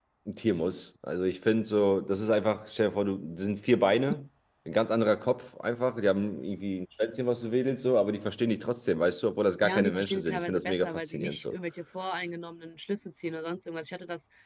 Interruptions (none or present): present